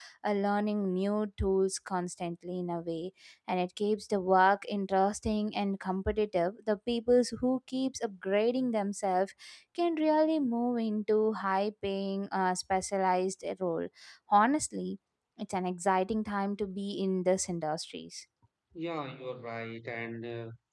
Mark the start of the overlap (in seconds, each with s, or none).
none